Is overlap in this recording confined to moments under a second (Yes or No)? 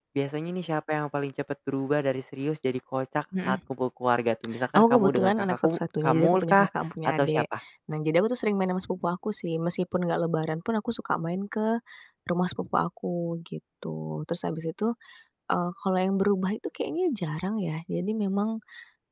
No